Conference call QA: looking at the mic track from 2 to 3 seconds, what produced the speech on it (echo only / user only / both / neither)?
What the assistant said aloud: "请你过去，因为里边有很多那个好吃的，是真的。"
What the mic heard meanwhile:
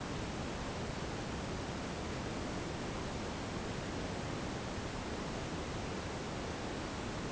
neither